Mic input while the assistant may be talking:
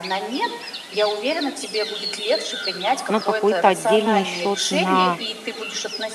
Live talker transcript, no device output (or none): на какой-то отдельный счет на